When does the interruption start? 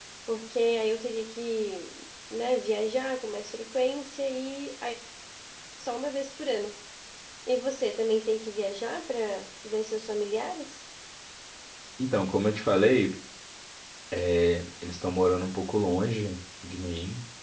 none

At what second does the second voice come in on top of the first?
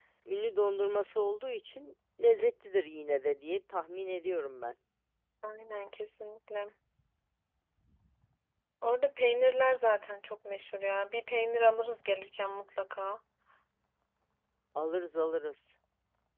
none

